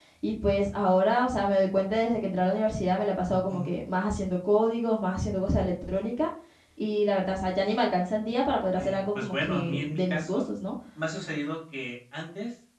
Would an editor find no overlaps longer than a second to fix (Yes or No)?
No